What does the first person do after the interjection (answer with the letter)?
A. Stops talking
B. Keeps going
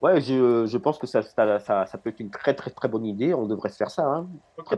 A